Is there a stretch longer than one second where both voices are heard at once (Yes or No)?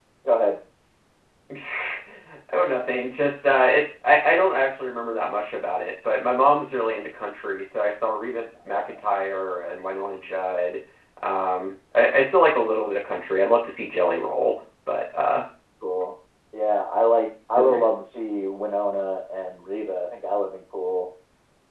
No